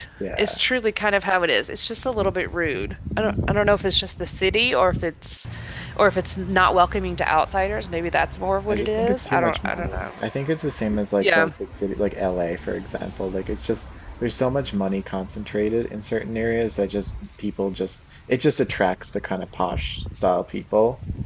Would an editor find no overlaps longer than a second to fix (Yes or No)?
No